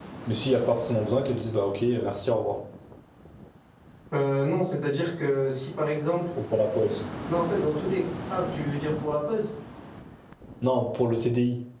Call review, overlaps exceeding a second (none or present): none